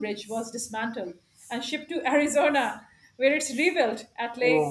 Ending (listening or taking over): taking over